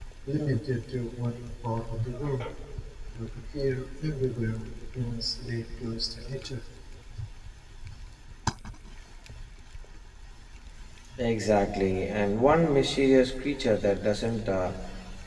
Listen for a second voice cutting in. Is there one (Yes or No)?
No